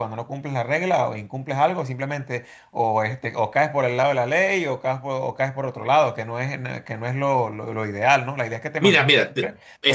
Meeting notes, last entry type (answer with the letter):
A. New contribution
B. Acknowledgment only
A